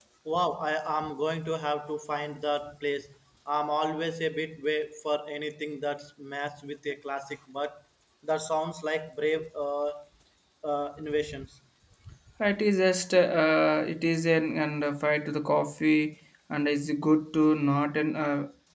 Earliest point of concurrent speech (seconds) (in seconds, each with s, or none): none